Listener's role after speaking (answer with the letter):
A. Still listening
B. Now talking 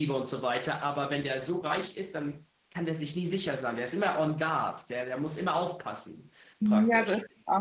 B